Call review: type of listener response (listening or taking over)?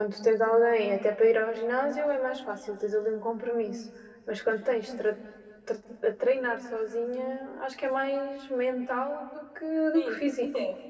taking over